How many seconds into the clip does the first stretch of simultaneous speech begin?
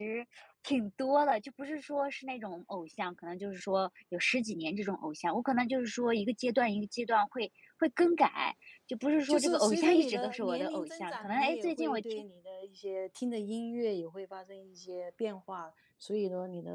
9.3 s

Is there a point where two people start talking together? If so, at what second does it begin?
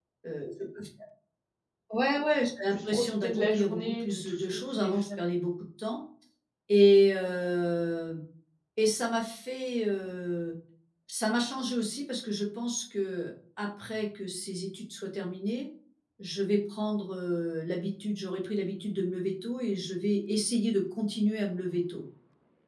2.7 s

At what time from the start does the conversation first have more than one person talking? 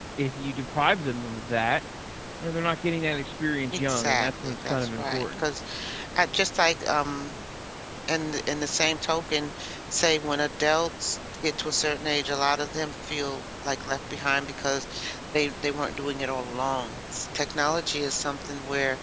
3.7 s

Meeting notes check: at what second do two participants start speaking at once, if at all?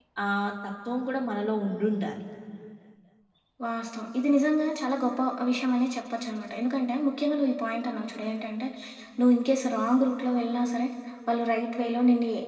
none

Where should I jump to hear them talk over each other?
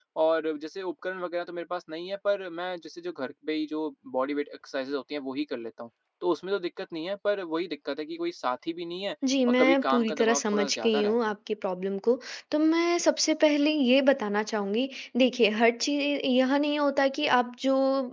9.2 s

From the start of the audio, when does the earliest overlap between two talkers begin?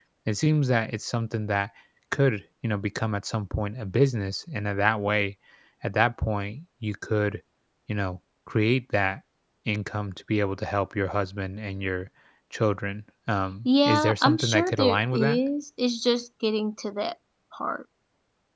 13.7 s

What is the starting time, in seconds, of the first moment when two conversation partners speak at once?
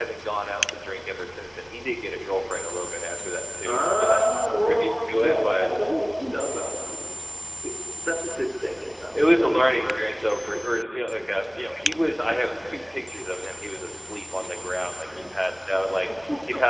3.6 s

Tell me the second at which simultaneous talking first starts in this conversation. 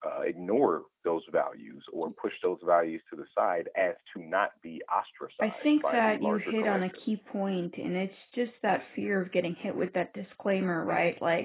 5.4 s

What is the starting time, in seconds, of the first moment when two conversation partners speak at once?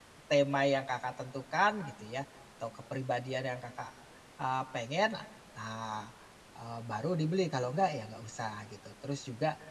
none

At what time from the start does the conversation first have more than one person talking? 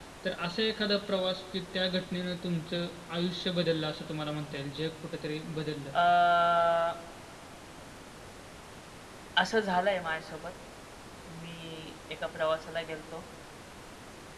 none

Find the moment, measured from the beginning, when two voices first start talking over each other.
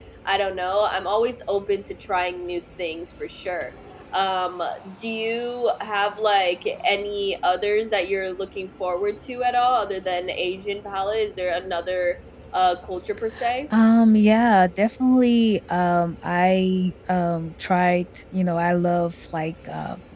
none

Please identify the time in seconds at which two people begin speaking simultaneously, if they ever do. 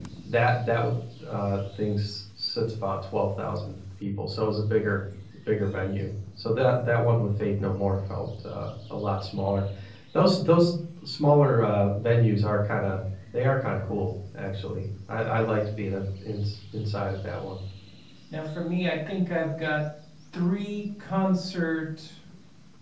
none

